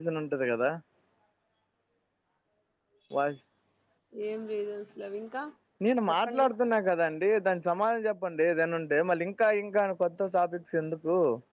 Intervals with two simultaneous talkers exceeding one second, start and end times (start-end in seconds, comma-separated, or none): none